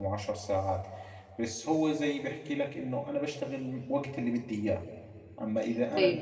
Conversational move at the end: listening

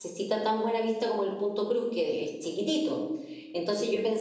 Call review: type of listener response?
listening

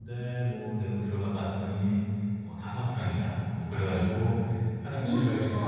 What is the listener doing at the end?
listening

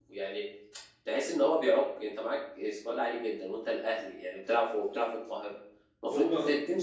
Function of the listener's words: listening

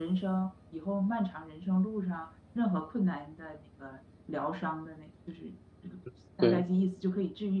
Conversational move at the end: listening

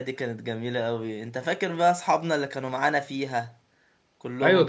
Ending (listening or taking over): taking over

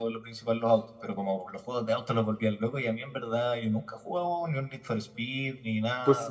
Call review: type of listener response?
taking over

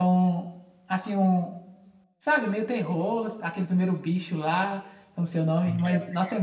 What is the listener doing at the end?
listening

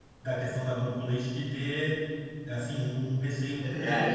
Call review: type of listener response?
taking over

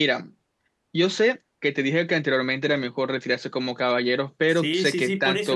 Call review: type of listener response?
taking over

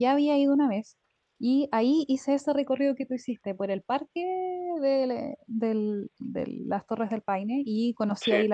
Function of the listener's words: listening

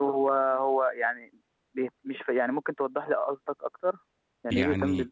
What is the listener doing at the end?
taking over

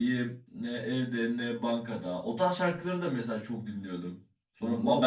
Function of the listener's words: taking over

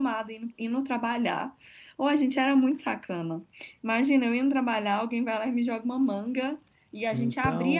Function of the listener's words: listening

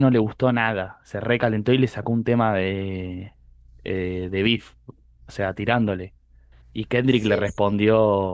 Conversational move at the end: listening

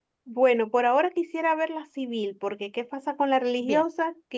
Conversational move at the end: listening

